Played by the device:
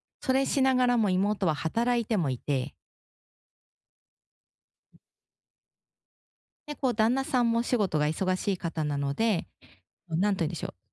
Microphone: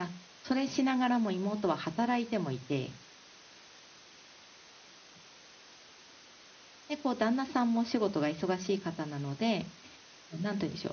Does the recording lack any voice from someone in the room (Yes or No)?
Yes